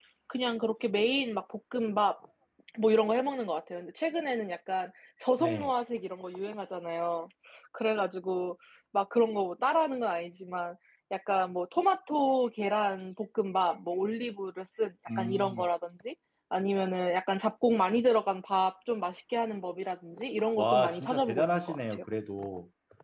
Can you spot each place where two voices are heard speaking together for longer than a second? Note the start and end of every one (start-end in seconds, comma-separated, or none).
20.6-22.0